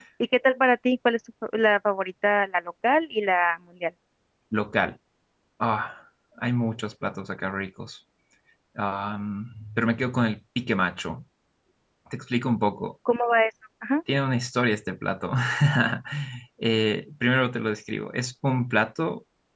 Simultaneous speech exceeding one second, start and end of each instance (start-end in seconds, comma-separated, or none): none